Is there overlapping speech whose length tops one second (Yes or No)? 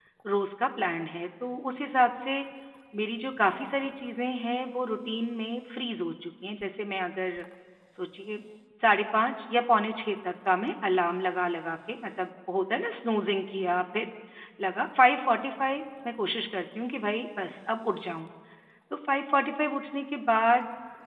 No